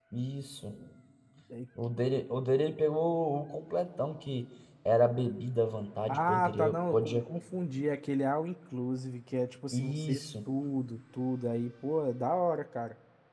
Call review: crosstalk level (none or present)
present